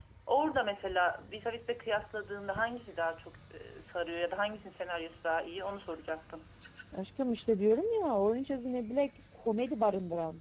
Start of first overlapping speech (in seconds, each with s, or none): none